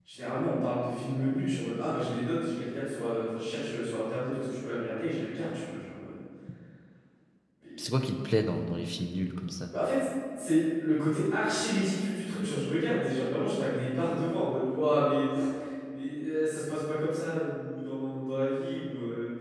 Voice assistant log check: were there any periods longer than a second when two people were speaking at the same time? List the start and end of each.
none

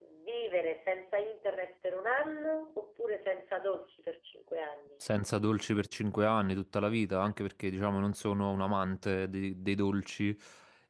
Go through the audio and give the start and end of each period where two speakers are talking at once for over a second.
none

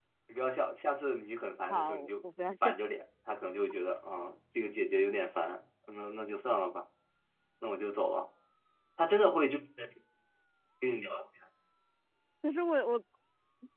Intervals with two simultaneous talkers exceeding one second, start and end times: none

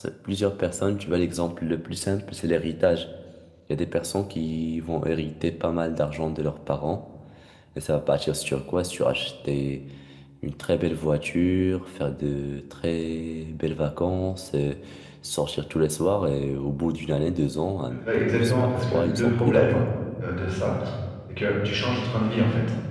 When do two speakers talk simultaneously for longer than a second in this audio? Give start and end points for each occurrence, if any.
17.9-19.8

